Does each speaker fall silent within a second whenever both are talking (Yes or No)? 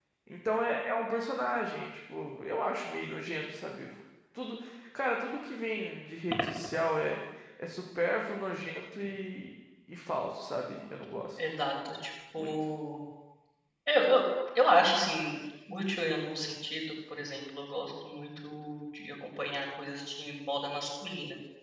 Yes